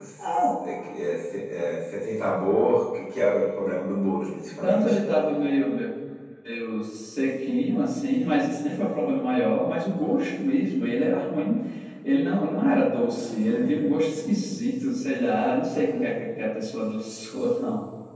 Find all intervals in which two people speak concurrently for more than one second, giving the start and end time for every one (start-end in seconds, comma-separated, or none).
none